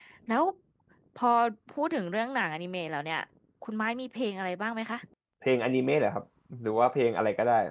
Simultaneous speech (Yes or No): No